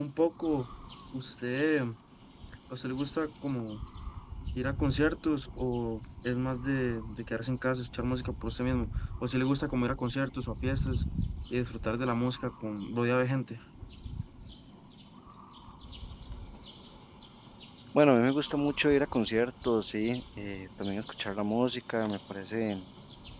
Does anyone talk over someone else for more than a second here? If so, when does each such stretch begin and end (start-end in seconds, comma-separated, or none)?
none